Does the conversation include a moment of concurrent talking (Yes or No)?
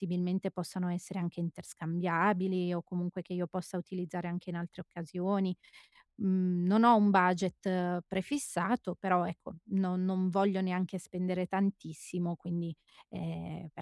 No